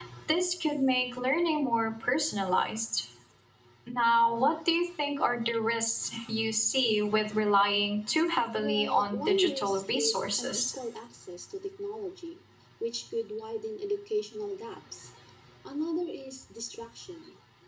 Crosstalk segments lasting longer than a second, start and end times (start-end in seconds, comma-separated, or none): 8.6-10.6